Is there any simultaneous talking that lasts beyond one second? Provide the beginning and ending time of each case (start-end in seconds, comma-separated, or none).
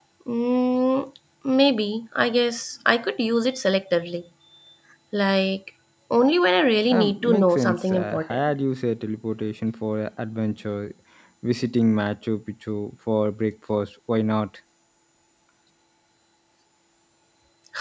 6.9-8.4